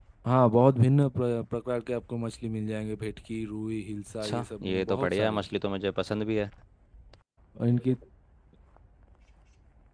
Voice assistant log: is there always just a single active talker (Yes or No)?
No